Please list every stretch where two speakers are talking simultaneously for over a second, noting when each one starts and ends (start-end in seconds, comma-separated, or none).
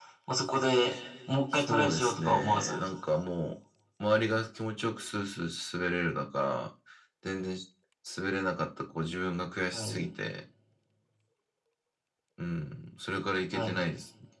1.6-2.9